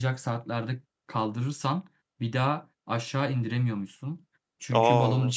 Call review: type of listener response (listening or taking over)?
listening